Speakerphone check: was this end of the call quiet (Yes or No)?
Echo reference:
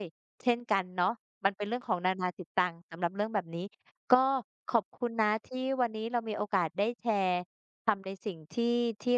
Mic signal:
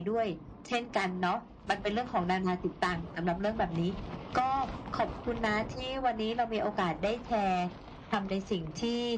Yes